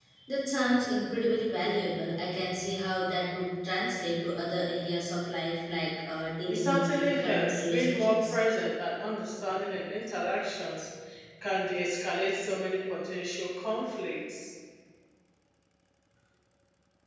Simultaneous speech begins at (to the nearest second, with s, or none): 6 s